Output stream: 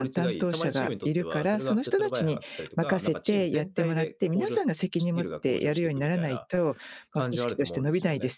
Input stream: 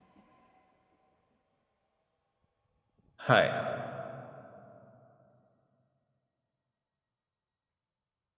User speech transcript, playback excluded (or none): はい、